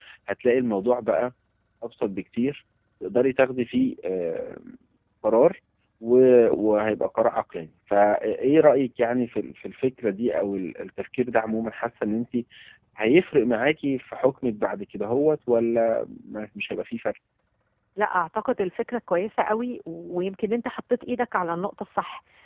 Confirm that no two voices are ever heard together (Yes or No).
Yes